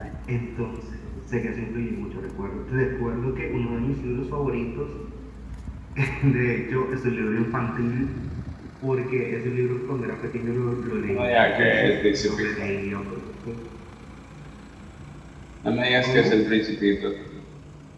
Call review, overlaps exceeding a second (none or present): present